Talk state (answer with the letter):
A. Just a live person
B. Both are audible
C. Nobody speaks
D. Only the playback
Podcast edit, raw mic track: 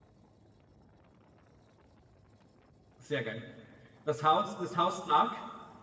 A